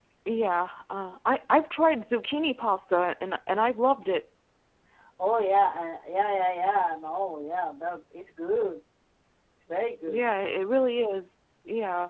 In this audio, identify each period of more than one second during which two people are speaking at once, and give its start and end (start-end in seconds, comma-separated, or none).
none